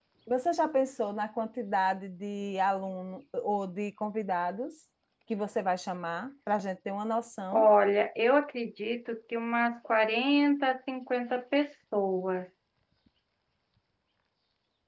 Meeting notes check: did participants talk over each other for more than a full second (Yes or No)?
No